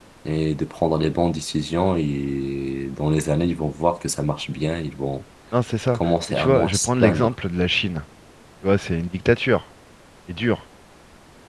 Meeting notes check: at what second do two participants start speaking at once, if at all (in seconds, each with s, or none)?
5.9 s